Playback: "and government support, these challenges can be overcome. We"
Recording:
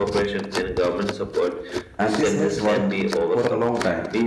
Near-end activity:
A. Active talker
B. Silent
A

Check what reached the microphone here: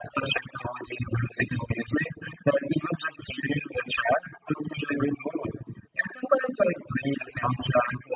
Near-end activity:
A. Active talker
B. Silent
B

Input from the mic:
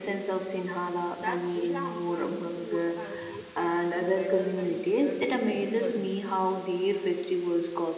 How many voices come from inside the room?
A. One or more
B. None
A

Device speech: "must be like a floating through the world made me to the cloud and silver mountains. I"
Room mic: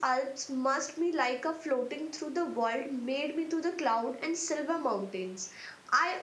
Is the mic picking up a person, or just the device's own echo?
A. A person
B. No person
B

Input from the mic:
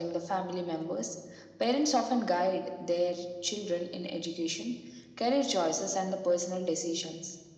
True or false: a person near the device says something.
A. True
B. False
B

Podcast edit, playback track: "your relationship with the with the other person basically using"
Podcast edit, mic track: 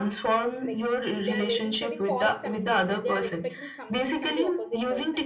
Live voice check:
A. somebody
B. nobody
A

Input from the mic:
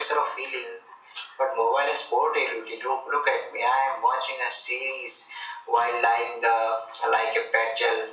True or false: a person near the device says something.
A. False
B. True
A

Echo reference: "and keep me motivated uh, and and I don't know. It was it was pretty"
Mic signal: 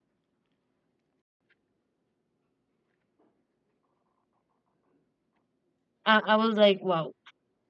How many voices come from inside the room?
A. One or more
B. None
A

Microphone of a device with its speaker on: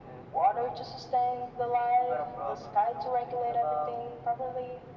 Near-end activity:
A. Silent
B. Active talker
A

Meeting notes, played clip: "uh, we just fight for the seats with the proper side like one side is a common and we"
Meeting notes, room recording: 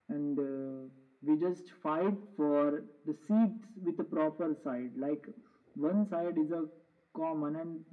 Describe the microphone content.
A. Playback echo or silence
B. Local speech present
A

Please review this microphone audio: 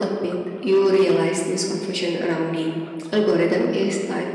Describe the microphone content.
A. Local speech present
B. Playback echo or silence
B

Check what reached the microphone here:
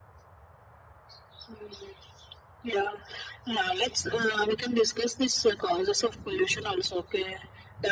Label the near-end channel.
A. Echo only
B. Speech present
A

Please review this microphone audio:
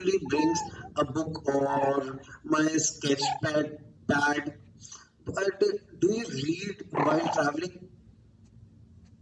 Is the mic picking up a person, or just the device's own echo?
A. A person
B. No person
B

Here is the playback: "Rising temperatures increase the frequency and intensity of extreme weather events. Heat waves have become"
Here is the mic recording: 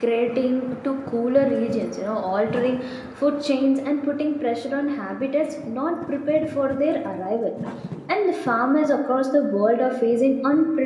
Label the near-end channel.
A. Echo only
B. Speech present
B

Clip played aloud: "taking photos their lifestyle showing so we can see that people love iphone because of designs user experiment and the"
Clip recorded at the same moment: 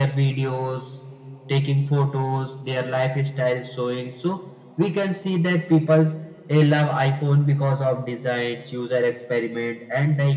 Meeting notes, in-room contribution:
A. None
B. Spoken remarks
A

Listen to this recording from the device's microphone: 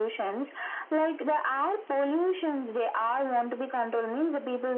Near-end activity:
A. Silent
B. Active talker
A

